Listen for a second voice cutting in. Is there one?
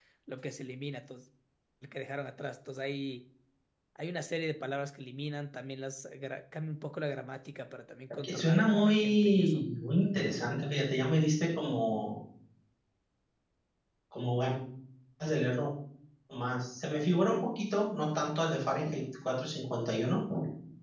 Yes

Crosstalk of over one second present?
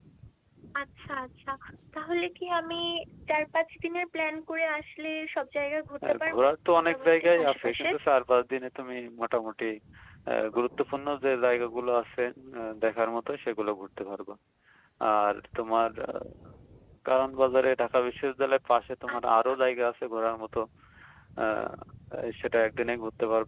Yes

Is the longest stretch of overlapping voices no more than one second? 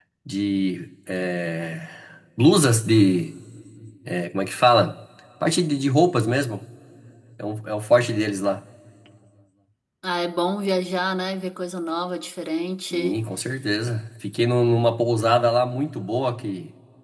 Yes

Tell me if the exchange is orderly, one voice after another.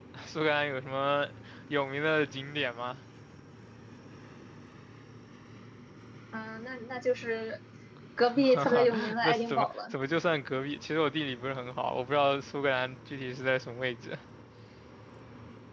No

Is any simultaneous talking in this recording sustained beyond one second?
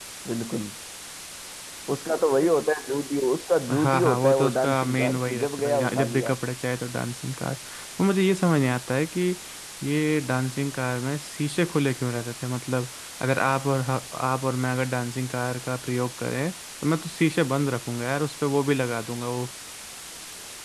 Yes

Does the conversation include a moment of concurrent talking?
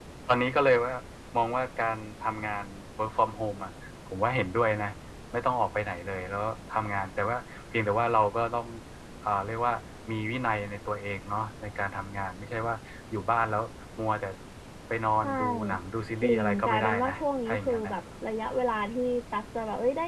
Yes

